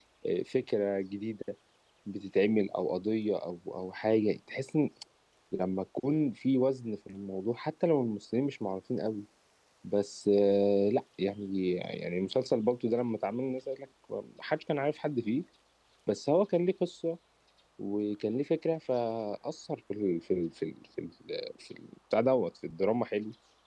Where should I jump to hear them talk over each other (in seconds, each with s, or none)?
none